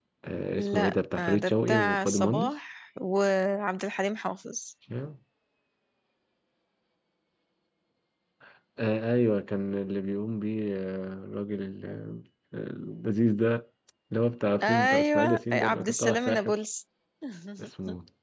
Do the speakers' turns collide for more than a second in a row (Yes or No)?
Yes